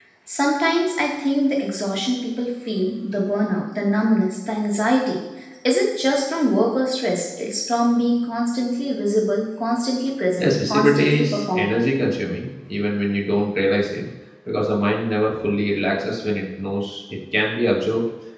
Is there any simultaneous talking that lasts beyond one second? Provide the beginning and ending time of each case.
10.4-11.7

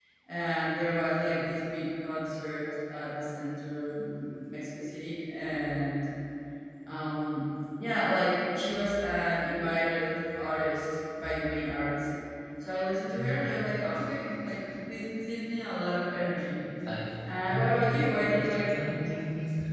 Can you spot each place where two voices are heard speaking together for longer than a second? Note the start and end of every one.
17.5-19.0

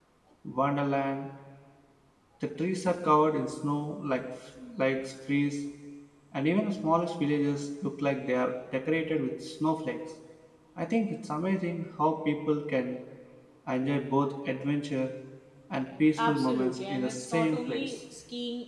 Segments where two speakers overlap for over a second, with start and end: 16.2-17.9

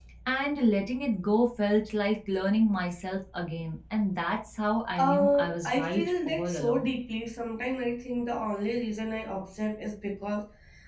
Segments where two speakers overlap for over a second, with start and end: 5.0-7.0

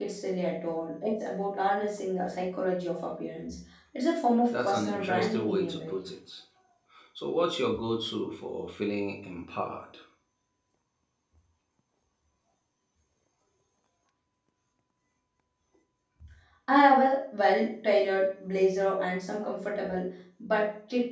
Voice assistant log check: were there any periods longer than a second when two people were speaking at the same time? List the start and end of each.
4.5-6.0

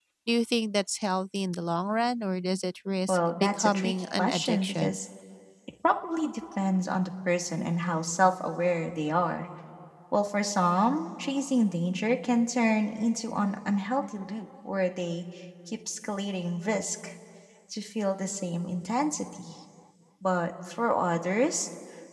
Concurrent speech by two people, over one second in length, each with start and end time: 3.1-5.0

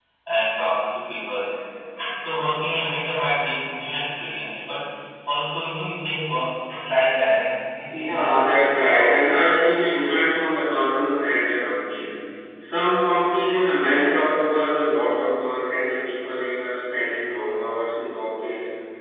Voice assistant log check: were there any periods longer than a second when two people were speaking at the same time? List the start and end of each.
8.0-9.4

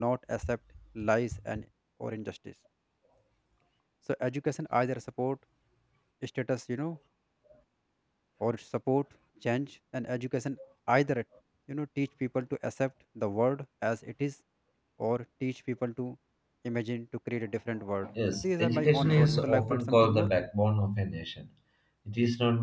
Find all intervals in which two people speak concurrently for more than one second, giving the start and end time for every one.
18.3-20.3

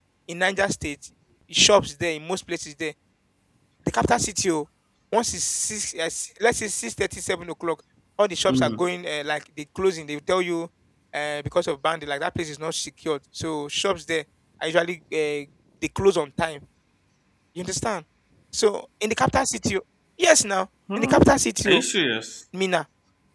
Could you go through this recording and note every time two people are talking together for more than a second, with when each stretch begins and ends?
none

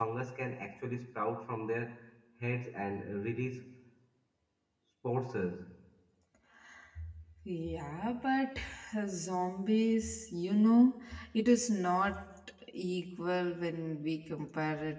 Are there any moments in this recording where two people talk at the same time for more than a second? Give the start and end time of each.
none

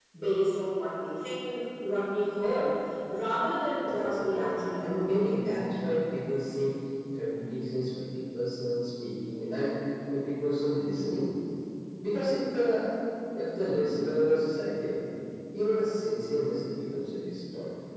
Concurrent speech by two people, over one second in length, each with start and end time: 3.8-5.6

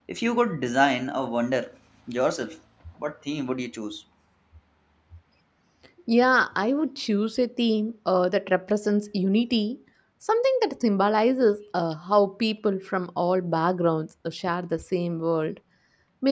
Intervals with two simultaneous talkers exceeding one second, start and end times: none

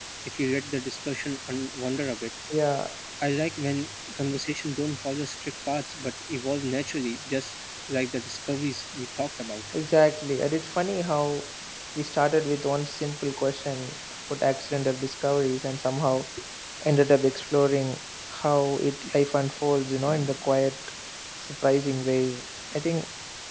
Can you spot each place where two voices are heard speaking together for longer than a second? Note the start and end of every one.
none

